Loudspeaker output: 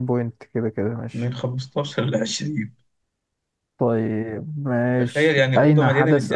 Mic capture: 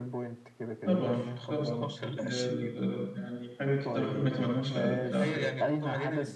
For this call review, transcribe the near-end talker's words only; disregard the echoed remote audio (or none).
طبعا طبعا ده ده ده ده يعني حاجة كده الواحد ما يتمناش لألد أعداء